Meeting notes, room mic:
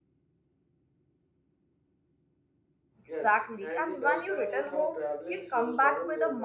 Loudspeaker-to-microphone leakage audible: Yes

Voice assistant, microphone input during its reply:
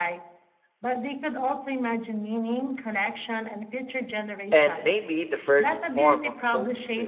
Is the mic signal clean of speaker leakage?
No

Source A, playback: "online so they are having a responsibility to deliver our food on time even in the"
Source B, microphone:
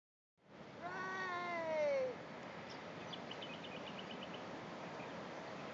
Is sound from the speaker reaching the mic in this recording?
No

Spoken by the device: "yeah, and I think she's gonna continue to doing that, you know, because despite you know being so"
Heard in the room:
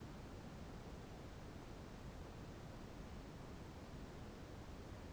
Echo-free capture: Yes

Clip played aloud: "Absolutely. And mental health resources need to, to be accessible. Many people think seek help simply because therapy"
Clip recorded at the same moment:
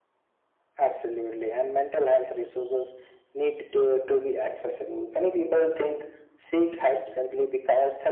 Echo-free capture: No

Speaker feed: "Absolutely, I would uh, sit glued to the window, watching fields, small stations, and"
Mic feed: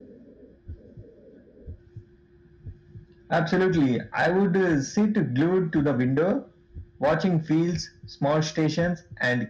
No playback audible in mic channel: No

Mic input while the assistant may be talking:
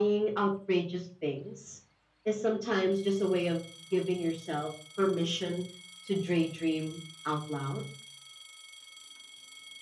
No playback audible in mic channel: No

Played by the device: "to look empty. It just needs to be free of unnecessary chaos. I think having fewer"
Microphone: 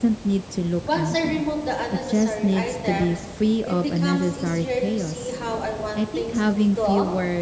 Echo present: Yes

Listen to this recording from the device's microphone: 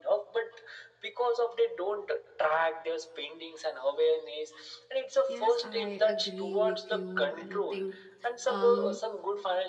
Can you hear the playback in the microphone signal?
Yes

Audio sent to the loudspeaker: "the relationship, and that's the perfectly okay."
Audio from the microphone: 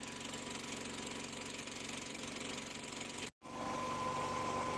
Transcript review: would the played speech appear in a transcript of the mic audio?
No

